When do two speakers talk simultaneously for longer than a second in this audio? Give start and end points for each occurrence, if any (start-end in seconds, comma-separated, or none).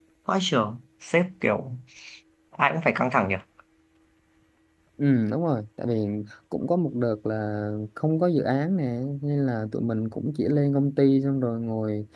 none